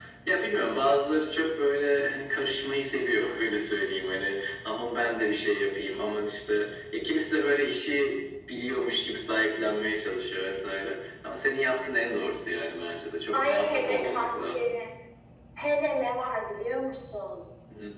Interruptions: present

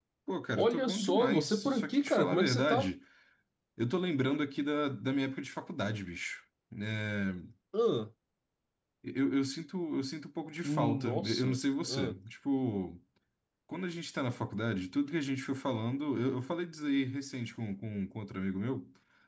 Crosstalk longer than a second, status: present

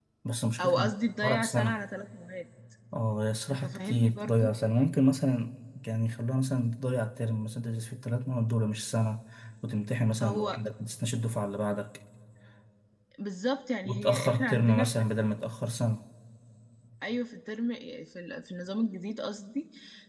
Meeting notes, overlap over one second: present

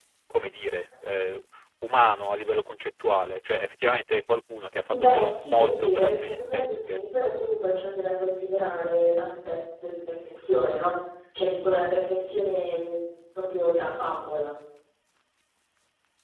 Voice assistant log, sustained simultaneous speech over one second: present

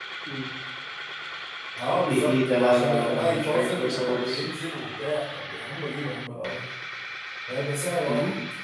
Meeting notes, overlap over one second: present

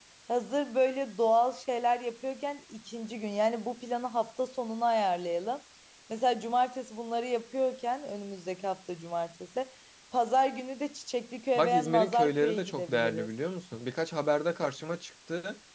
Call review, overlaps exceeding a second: present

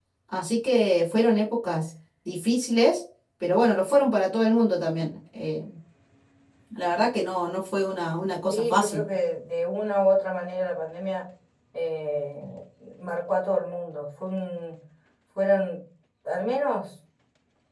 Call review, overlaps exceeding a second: none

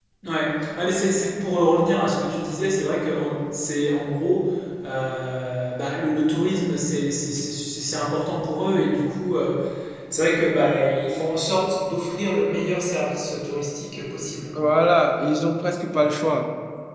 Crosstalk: none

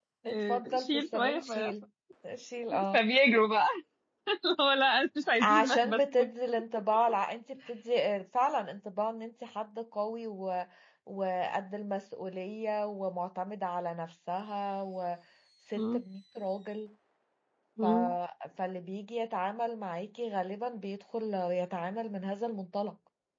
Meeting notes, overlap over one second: present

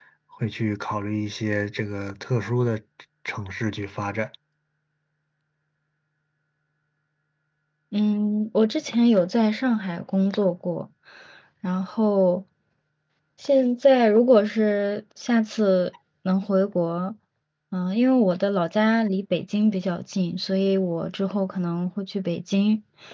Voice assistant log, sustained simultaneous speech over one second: none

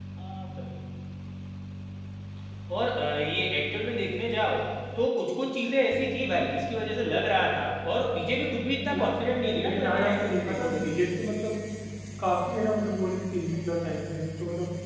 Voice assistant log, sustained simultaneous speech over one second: present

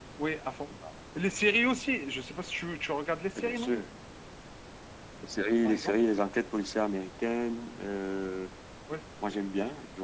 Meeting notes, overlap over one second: none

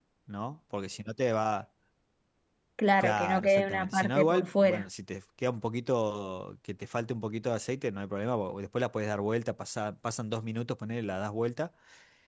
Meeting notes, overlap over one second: present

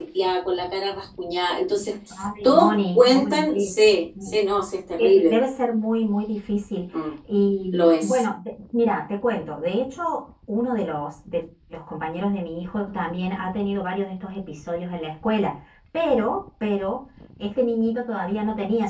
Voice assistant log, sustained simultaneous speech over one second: present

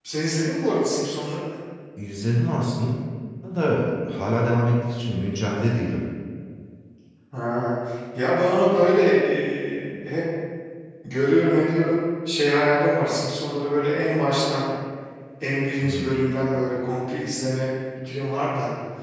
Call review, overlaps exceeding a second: none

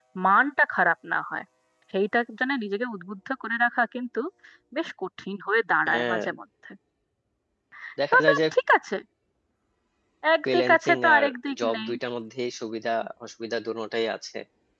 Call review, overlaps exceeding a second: present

